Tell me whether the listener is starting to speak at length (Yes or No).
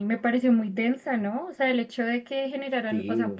No